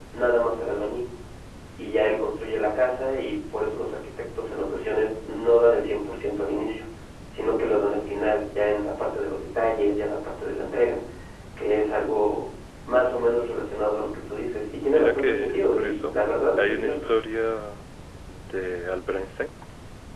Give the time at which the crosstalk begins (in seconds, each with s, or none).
14.9 s